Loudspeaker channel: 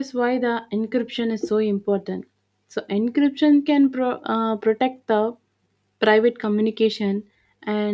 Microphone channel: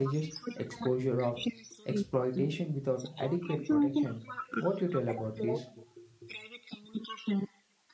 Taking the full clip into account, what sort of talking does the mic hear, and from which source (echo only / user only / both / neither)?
both